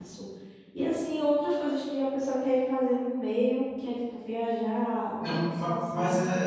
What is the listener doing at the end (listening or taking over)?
taking over